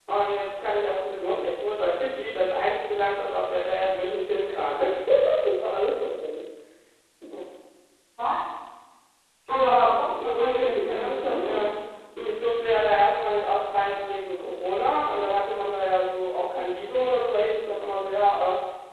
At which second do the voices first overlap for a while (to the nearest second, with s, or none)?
9 s